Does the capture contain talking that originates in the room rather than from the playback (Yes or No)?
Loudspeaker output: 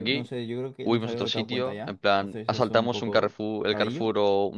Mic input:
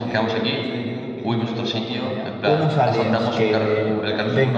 Yes